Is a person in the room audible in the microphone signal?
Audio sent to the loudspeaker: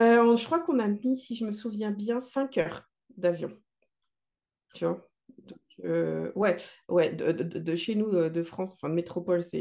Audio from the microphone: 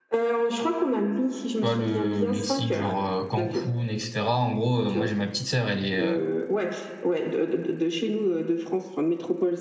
Yes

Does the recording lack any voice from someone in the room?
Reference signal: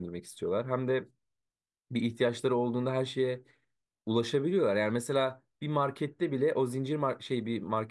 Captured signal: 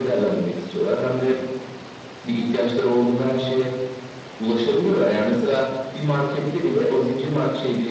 Yes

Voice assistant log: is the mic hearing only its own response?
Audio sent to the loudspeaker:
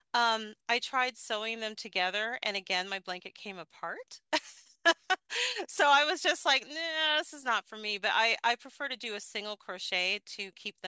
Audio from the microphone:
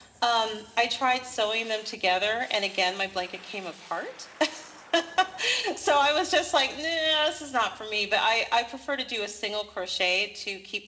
Yes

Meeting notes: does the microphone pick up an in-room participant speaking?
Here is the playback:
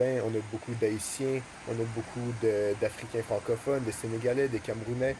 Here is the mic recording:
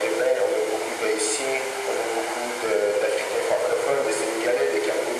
No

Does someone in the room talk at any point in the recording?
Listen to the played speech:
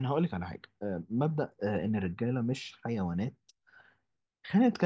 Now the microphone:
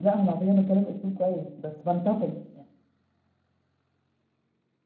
Yes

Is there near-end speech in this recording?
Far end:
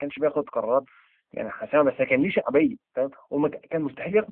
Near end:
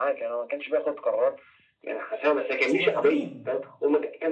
Yes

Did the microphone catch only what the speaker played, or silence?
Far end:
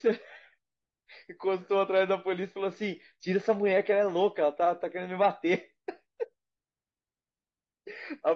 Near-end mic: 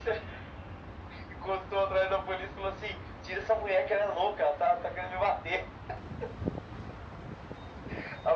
Yes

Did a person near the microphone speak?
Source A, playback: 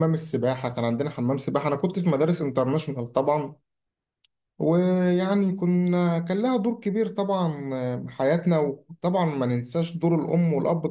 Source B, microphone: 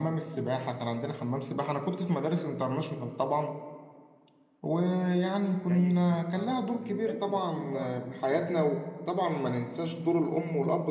Yes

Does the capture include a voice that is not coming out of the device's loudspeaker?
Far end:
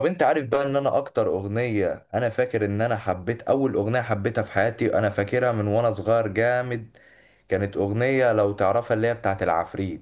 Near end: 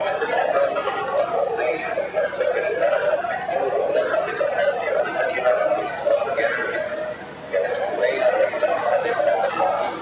No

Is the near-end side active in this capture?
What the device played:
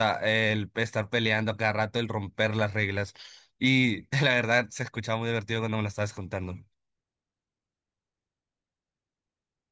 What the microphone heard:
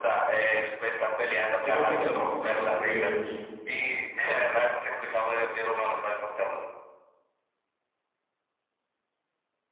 Yes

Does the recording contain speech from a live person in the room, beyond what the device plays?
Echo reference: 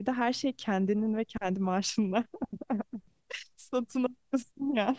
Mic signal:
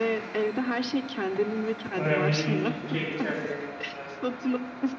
Yes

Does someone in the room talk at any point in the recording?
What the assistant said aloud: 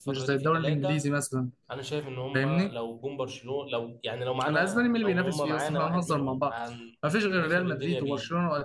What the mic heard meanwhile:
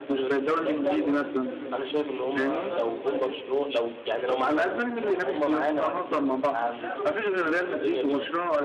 Yes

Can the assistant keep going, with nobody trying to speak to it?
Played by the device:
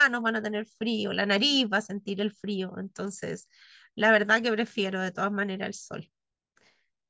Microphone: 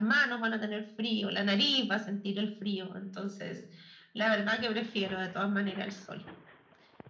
Yes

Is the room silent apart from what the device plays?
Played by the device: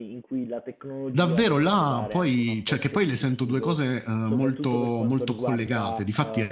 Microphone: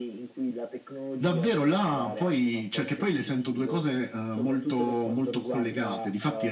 Yes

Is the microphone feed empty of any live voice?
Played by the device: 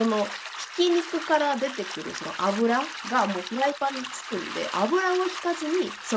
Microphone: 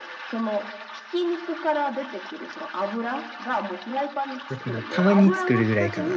No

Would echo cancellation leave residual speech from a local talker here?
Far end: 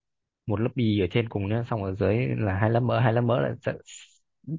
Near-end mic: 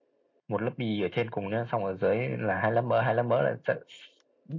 No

